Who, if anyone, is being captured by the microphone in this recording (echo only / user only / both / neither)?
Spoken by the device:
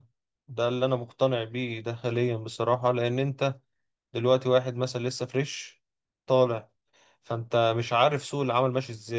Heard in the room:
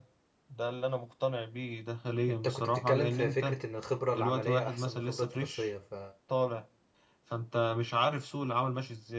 both